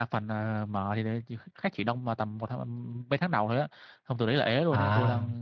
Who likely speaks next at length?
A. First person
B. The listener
A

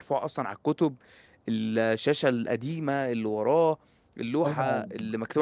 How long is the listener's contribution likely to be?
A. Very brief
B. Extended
B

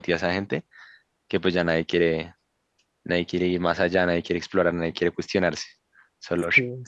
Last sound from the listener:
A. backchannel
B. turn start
A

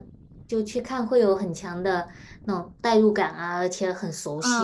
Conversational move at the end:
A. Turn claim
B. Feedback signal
A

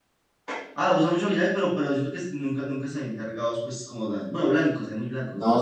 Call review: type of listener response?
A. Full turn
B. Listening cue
A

